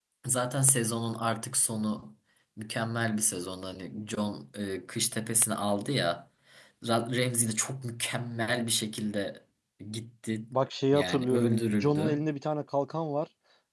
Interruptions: present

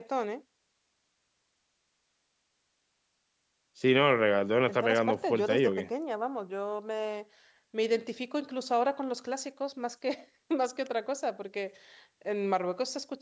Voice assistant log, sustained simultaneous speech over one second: present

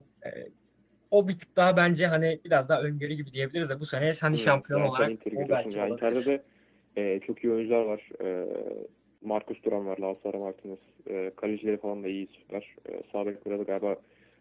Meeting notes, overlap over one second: present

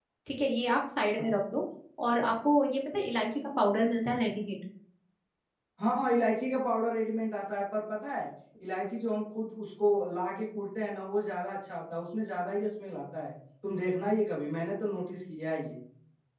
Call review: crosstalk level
none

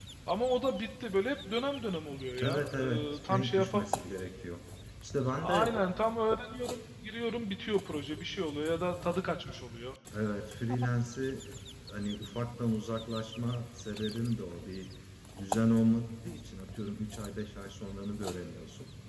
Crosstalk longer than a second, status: present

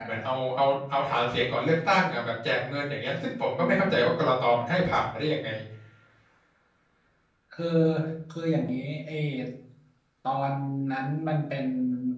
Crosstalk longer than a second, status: none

